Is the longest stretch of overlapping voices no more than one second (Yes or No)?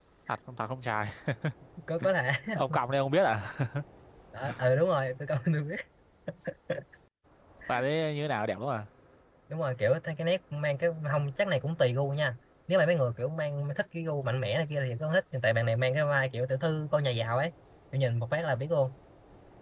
Yes